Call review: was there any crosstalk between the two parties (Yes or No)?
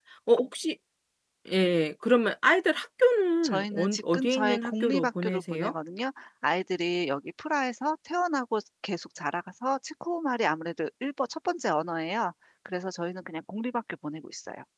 Yes